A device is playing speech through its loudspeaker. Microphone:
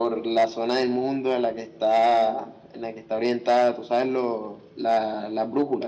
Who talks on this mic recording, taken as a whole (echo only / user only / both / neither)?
echo only